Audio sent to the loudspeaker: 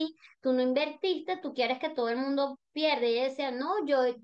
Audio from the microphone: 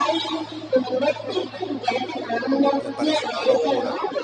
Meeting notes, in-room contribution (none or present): present